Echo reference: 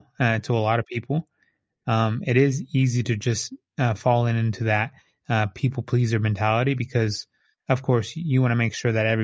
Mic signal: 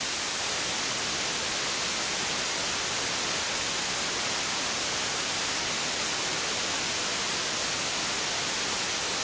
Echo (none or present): none